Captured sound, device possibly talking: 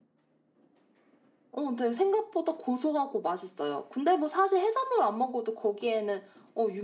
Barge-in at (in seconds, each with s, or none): none